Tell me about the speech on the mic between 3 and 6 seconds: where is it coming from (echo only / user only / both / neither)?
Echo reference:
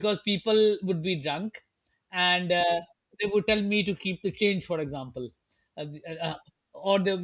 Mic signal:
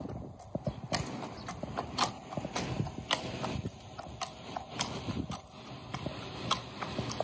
neither